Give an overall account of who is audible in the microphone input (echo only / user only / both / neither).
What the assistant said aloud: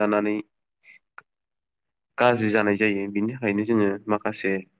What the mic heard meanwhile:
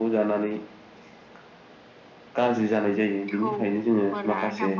both